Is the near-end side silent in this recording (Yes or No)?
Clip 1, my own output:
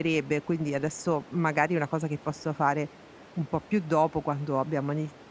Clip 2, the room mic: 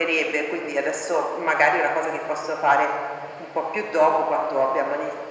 Yes